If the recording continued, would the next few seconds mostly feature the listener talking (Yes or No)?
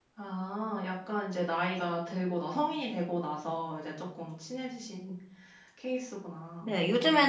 Yes